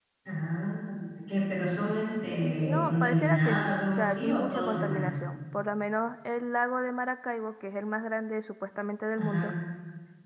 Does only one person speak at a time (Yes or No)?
No